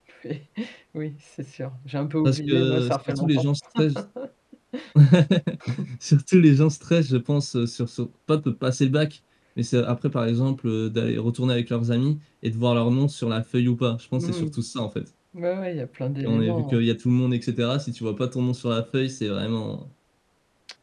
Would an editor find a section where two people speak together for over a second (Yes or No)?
Yes